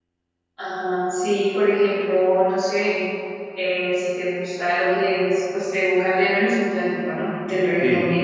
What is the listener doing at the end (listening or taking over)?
taking over